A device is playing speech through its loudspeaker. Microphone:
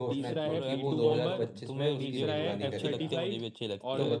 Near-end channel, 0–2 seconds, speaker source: both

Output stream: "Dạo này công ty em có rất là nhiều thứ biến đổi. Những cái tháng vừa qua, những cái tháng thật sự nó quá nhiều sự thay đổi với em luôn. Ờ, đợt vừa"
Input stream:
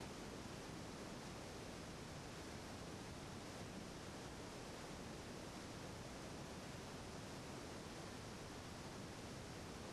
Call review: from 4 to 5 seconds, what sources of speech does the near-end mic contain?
neither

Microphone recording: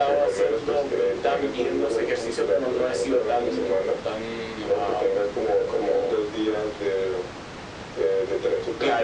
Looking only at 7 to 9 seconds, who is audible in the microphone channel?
echo only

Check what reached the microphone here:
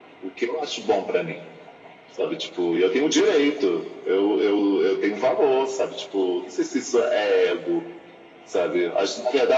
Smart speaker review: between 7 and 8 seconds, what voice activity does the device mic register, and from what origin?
echo only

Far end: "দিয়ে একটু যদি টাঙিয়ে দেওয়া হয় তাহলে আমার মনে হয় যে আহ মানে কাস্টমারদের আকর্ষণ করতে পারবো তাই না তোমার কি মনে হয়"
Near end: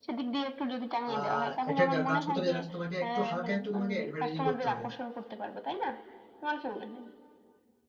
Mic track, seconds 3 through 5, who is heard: both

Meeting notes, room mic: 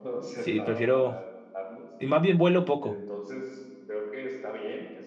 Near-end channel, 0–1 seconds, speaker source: both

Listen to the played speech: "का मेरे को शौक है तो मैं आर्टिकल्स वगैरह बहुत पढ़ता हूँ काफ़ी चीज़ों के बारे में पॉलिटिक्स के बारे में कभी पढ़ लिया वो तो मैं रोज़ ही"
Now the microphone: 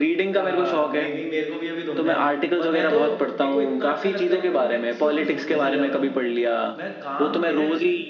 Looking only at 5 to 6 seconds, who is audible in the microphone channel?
both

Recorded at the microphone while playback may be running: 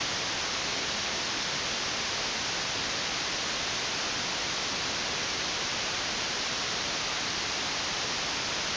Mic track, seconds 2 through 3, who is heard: neither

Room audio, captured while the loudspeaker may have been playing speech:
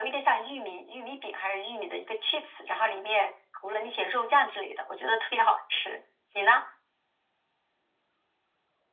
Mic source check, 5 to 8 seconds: echo only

